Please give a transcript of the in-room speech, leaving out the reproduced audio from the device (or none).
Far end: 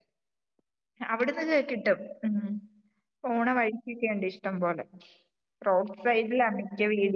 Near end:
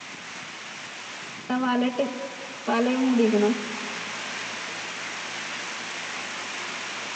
ആ വലയിട്ട് വലയിൽ മൂടിയേക്കണു